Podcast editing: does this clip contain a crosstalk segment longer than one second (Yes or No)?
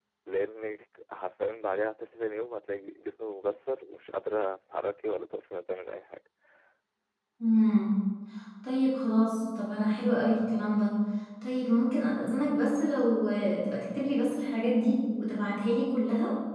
No